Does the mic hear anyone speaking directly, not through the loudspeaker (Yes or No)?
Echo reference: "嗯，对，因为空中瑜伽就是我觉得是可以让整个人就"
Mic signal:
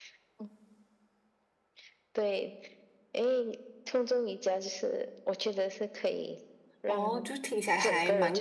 Yes